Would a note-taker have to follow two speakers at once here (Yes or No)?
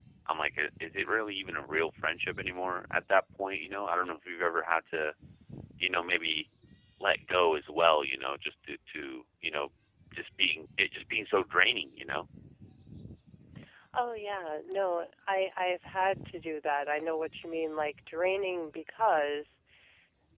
No